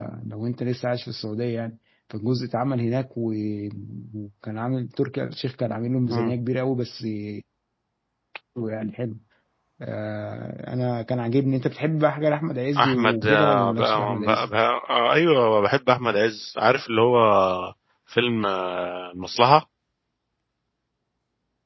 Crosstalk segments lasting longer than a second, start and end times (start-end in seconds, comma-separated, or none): 12.8-14.5